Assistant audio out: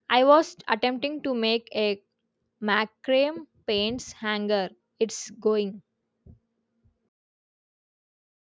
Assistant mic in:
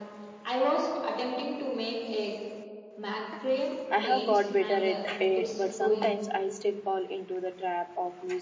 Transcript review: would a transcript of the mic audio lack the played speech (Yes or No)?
No